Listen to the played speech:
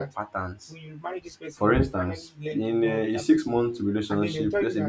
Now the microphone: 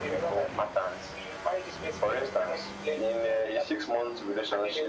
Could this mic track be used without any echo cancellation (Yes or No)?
No